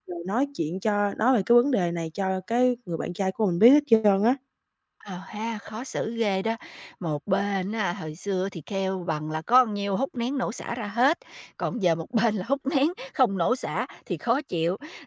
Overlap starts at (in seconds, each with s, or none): none